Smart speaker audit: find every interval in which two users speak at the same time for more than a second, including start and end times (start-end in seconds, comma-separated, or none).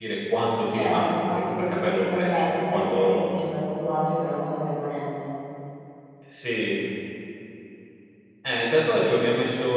0.8-3.2